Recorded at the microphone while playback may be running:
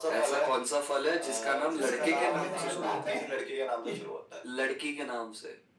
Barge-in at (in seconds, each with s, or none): 1.7 s